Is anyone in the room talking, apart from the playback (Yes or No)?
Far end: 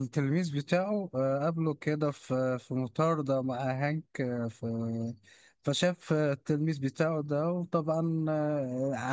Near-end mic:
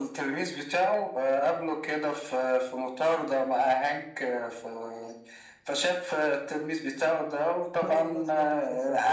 Yes